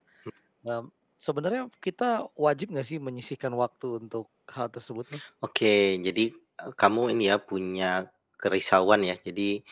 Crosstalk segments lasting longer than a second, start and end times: none

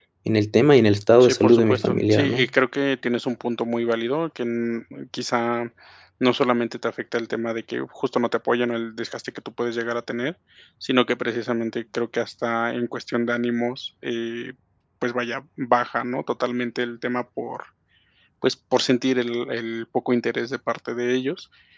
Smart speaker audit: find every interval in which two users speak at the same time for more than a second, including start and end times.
1.2-2.5

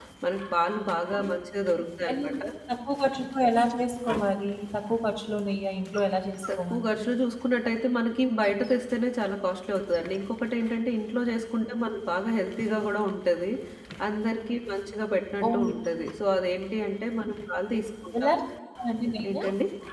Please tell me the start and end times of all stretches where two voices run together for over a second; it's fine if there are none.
none

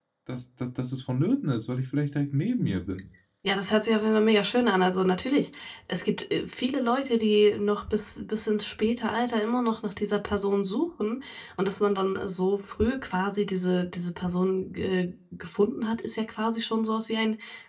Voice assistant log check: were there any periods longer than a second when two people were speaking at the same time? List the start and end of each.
none

